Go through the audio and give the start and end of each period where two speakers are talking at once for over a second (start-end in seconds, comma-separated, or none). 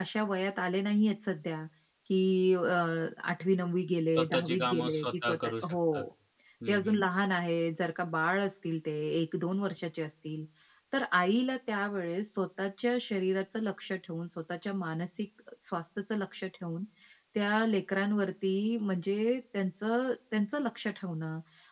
4.2-5.8